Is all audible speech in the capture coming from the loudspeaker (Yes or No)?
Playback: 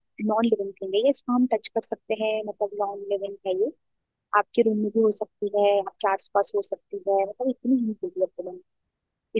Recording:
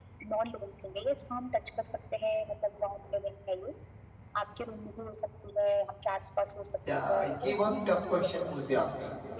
No